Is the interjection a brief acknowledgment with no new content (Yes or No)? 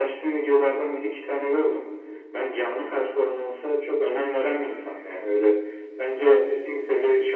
Yes